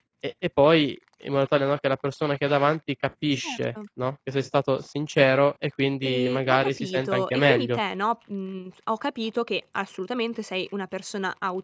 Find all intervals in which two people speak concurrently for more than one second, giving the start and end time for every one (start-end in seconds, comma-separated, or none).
6.0-7.8